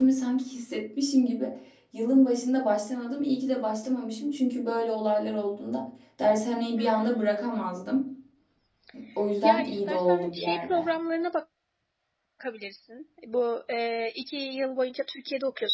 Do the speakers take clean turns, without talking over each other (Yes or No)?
No